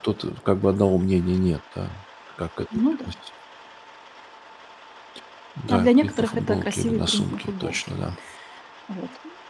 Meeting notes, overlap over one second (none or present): present